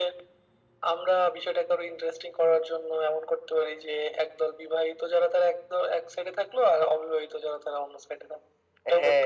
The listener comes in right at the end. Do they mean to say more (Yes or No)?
Yes